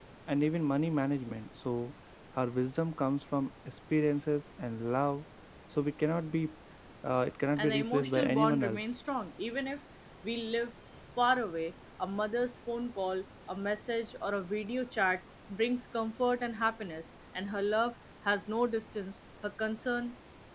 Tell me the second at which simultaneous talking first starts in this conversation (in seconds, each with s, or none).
7.6 s